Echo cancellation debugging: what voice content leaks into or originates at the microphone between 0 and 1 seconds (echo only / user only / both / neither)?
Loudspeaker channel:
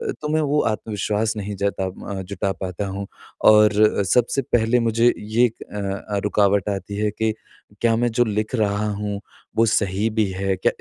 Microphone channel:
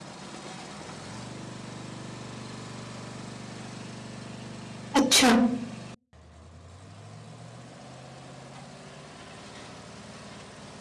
neither